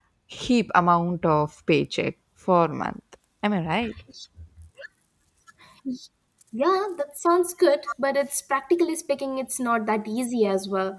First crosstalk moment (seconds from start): none

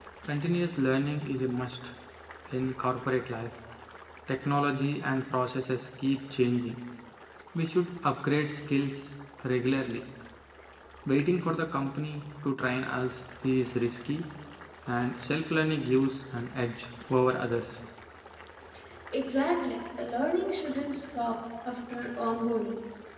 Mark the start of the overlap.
none

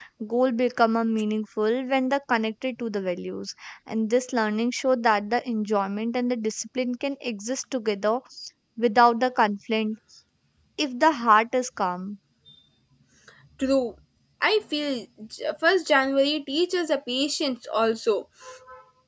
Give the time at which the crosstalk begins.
none

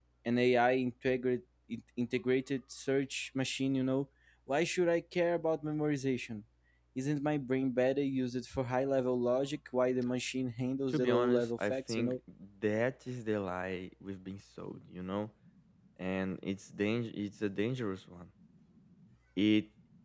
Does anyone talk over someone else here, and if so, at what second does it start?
10.9 s

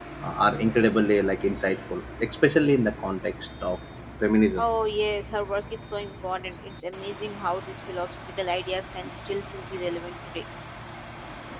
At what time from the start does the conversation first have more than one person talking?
none

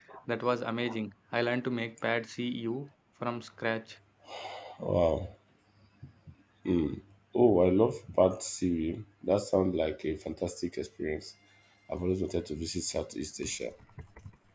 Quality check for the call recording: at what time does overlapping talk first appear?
none

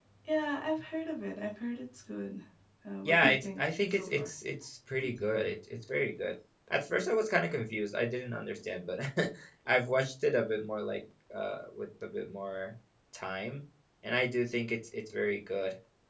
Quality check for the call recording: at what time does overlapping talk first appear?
3.0 s

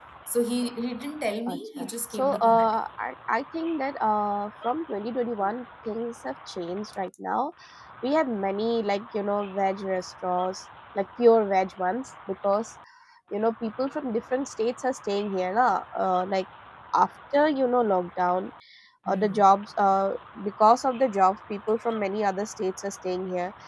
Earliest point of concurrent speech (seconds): 1.5 s

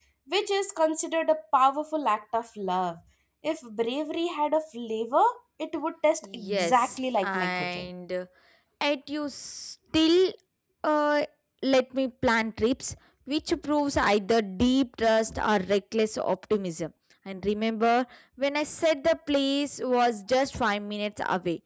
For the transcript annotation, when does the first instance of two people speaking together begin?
6.2 s

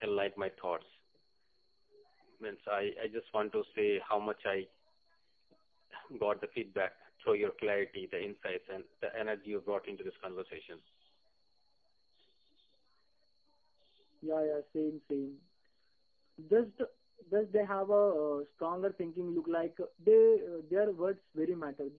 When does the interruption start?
none

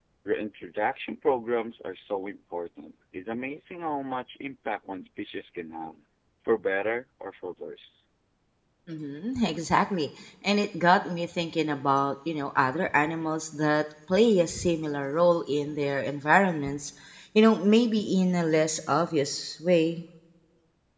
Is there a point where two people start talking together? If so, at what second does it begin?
none

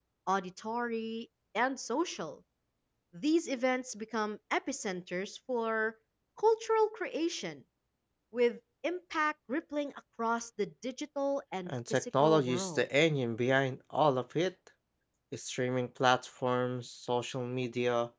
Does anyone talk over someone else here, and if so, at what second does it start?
11.7 s

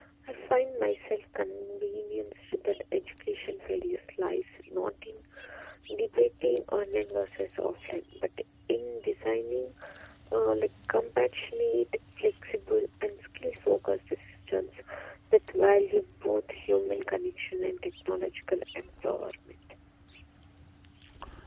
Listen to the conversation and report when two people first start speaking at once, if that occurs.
none

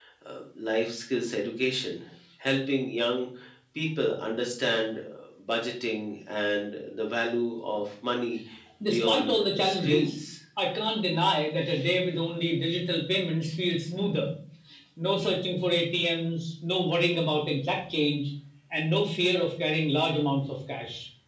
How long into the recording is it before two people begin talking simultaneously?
8.8 s

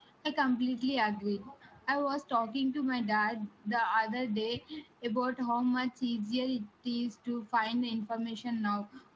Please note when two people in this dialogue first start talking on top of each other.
none

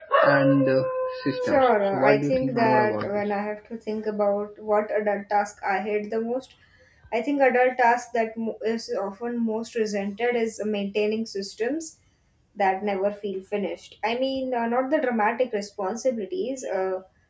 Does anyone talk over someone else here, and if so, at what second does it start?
1.4 s

